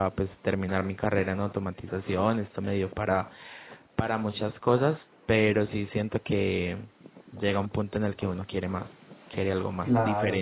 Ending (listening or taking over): taking over